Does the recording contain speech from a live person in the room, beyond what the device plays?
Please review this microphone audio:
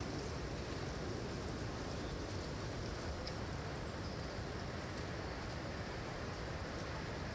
No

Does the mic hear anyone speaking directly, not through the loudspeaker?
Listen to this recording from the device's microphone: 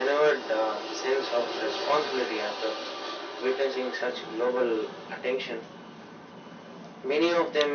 No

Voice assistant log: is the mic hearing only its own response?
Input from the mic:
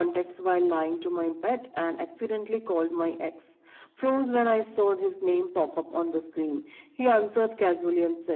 Yes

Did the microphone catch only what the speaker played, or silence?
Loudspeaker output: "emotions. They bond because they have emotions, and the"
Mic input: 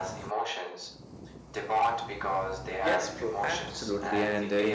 No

